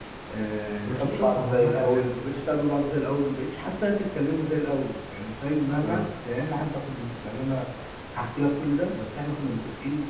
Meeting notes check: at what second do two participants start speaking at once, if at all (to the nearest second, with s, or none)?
1 s